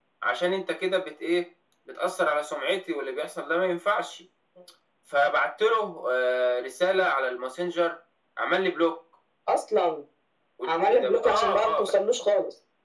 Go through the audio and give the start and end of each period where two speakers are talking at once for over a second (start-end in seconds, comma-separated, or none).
10.6-11.9